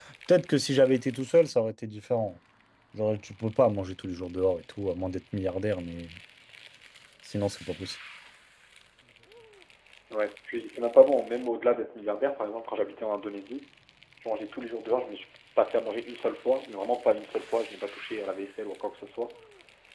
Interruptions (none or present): none